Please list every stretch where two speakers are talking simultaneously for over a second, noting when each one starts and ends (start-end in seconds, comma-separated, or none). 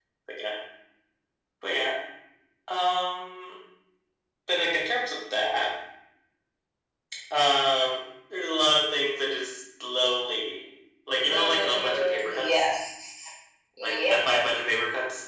11.2-12.6